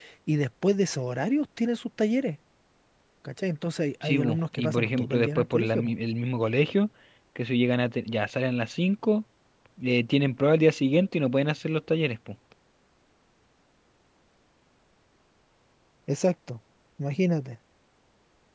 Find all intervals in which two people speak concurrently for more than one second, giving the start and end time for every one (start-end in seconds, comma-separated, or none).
4.0-5.9